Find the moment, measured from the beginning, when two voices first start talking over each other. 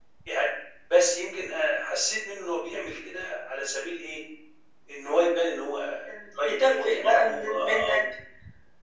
6.4 s

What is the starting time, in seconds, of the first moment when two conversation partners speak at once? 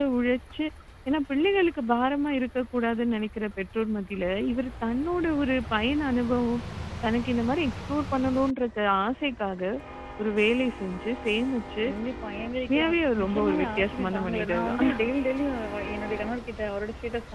12.7 s

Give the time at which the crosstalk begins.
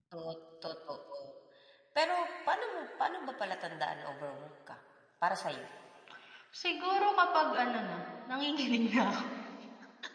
none

